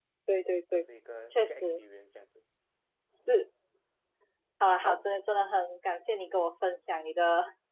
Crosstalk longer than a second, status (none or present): none